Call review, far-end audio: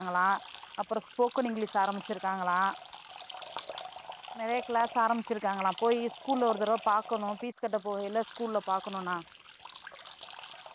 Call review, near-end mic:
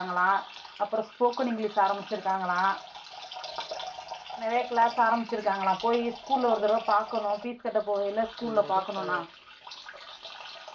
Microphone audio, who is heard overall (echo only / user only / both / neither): both